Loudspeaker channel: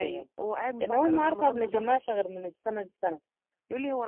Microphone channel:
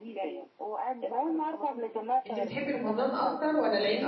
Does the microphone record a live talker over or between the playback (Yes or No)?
Yes